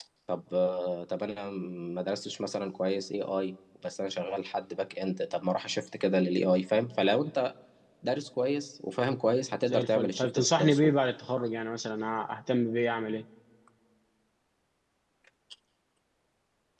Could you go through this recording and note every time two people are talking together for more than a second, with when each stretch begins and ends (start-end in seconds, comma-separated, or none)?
9.7-10.9